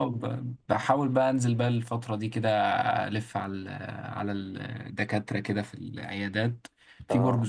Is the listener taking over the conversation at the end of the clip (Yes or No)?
No